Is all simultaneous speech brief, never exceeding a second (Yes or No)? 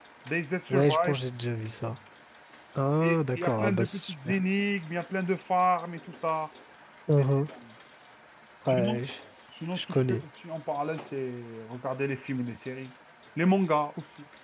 No